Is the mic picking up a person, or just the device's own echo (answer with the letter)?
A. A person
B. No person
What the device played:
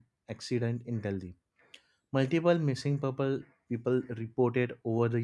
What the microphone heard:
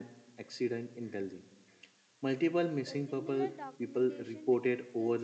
A